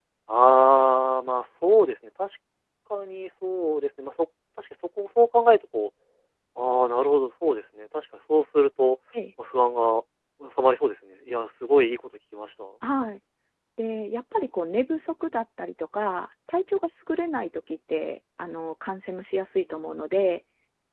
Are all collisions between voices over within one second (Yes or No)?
Yes